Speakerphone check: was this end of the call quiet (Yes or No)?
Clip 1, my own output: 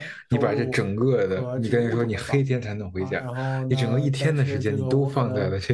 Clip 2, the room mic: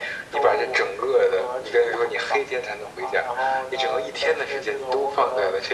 Yes